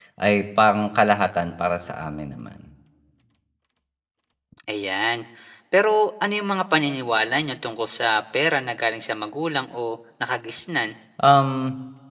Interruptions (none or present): none